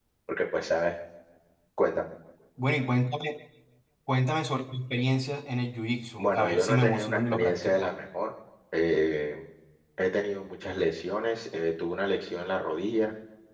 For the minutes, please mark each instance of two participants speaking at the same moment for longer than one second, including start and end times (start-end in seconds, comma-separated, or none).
6.2-7.9